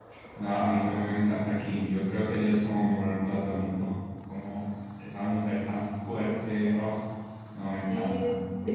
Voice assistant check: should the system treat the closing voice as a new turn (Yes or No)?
Yes